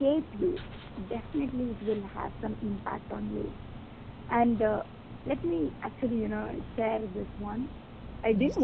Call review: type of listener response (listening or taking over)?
listening